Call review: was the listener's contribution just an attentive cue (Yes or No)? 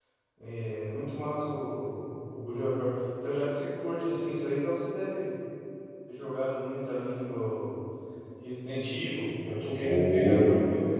Yes